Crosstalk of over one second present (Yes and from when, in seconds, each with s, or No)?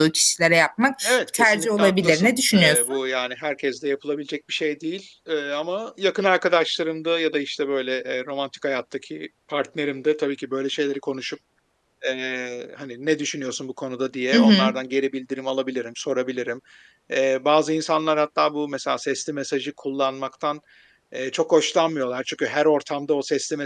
Yes, from 1.0 s